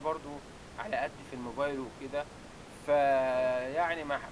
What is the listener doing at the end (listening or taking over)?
listening